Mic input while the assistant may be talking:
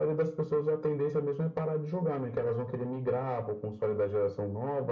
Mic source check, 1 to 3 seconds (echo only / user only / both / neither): echo only